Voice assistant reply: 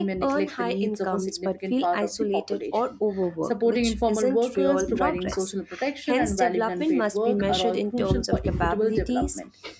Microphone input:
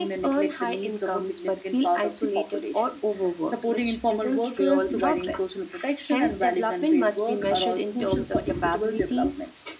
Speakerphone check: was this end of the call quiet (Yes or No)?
Yes